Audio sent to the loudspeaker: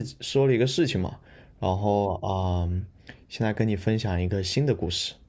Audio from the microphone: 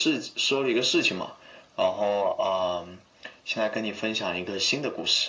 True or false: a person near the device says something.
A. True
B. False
B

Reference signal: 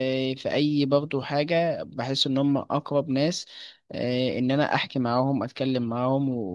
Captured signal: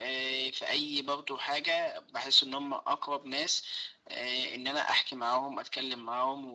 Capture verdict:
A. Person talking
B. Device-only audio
B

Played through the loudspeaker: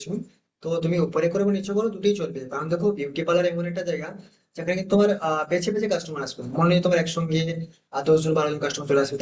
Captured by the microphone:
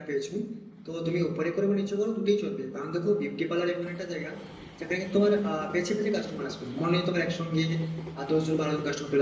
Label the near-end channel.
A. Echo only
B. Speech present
A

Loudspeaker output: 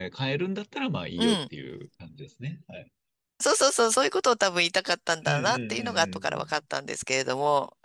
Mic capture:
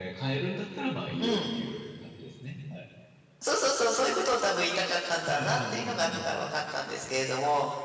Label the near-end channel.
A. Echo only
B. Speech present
A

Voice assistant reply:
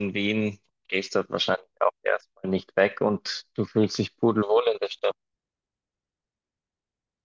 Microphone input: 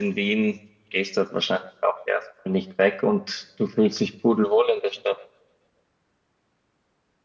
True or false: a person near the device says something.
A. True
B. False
B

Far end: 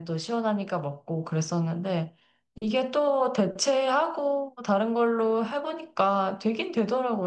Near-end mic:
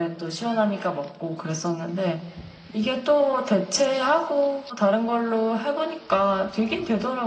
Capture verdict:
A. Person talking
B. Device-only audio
B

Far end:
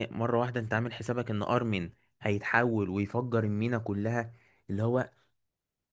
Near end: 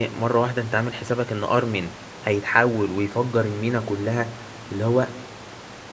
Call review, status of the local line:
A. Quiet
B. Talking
A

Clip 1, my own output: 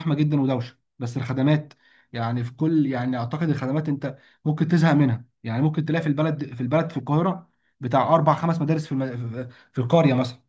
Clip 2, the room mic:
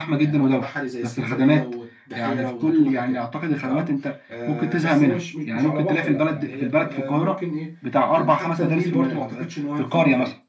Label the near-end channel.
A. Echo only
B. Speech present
B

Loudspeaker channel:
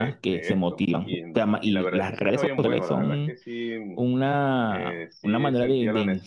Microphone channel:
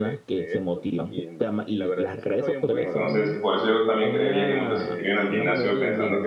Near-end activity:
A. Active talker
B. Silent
A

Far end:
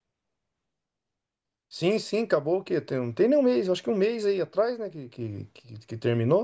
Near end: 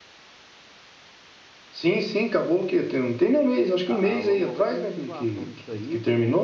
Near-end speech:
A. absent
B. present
B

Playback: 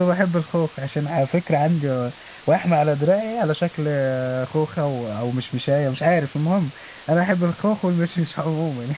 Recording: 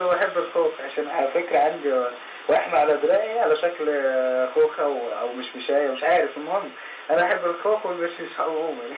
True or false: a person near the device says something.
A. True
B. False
B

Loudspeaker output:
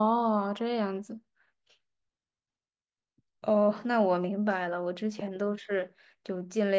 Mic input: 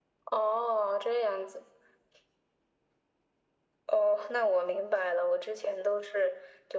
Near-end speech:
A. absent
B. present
A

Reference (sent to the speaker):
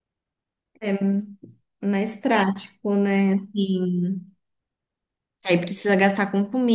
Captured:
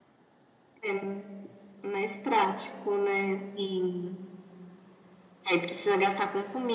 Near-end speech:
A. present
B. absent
B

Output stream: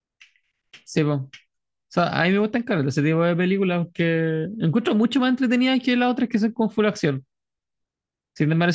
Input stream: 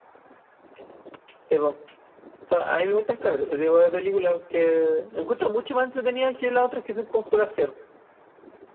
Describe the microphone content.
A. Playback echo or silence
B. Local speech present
A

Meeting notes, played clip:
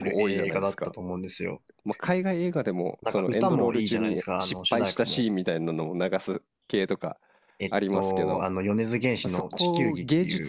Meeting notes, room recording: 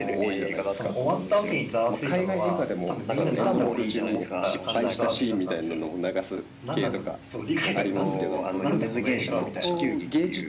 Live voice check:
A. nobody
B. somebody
B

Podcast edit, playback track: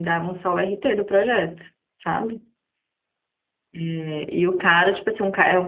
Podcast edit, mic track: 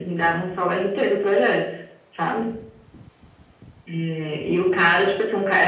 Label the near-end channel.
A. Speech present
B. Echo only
B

